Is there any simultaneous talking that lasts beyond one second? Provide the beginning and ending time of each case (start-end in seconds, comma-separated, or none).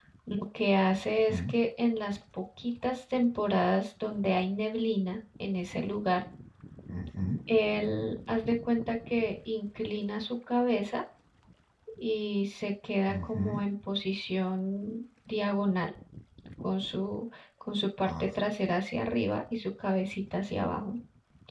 none